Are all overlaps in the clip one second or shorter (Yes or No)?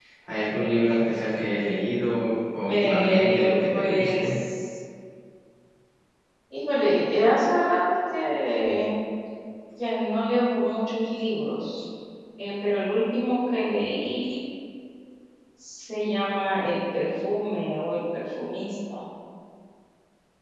No